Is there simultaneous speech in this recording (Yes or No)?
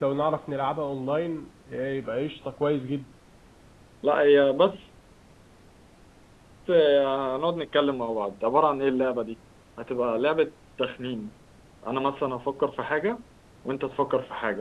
No